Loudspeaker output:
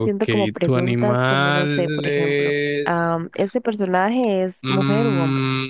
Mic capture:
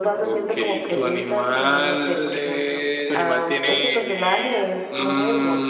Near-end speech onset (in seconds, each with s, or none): 3.0 s